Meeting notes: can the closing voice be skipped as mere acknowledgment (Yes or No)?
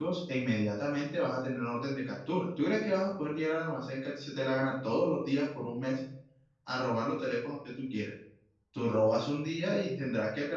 Yes